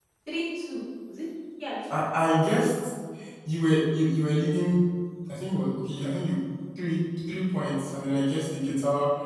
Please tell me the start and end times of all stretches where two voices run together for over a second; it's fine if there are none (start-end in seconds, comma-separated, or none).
none